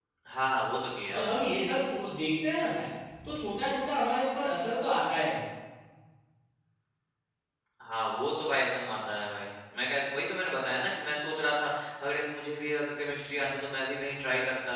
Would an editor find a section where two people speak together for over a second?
No

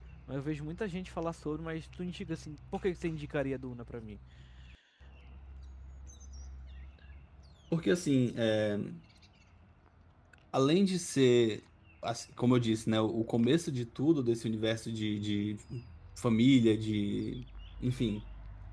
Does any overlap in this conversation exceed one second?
No

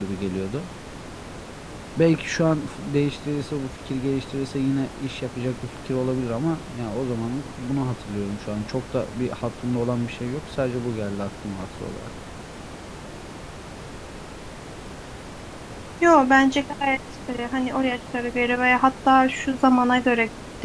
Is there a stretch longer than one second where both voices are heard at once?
No

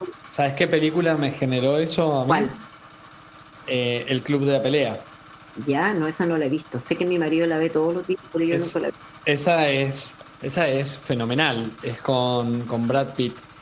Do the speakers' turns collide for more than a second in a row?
No

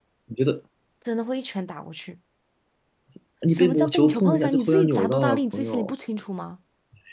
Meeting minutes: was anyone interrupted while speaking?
Yes, from 3.5 s

